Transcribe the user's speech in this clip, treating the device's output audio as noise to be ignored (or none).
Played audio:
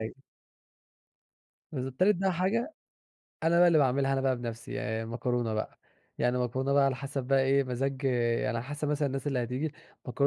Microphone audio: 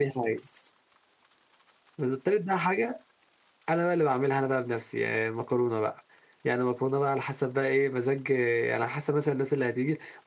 none